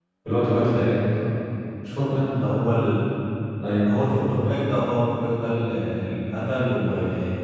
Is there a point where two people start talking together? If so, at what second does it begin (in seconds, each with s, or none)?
none